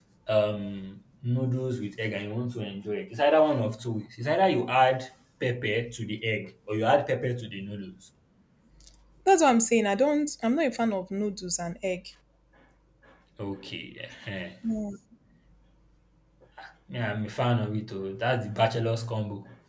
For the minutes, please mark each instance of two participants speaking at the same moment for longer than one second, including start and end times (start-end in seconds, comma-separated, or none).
none